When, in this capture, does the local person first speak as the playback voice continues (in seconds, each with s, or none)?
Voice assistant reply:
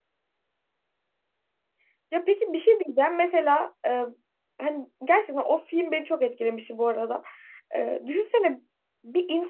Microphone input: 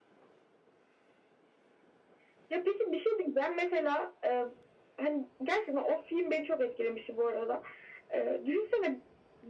none